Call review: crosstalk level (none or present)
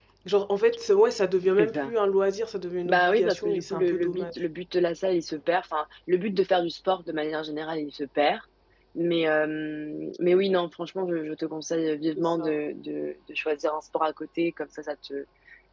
present